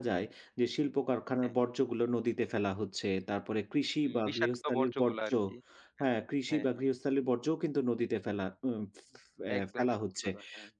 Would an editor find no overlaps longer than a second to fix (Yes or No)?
No